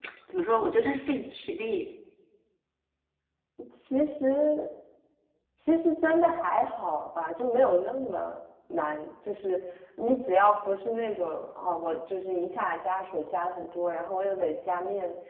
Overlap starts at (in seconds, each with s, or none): none